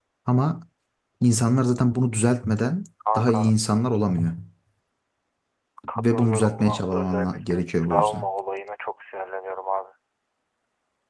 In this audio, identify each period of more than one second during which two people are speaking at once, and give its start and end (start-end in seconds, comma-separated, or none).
6.0-8.3